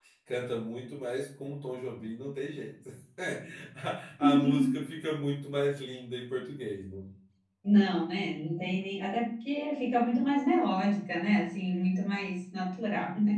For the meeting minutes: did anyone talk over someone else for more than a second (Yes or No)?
No